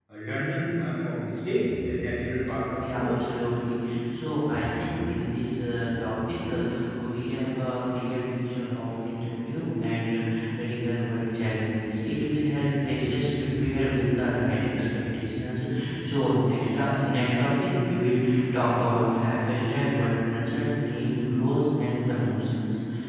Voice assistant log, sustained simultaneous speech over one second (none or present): none